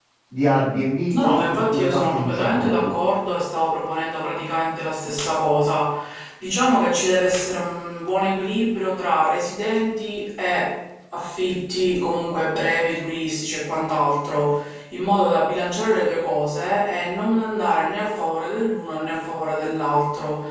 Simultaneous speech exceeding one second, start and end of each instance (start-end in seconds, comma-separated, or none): 1.1-2.9